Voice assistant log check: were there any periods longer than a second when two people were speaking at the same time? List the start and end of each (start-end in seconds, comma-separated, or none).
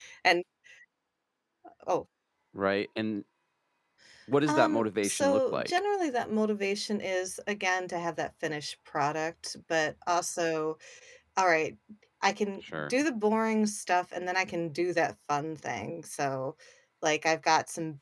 4.5-5.7